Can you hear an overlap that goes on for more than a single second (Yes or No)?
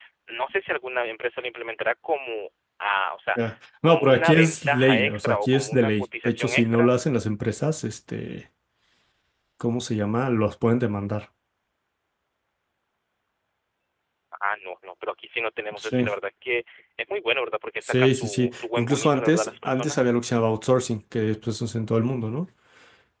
Yes